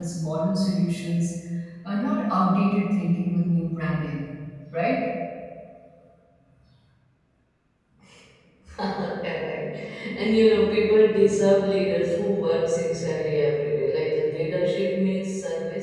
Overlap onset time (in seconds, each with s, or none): none